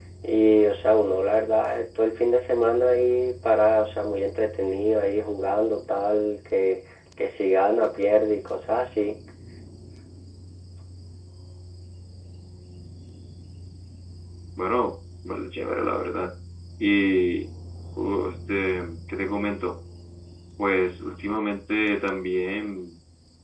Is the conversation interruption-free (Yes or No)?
Yes